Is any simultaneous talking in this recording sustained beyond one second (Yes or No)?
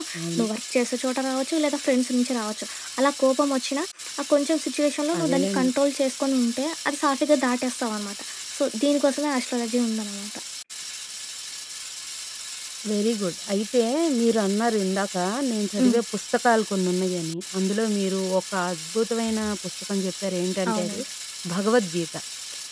No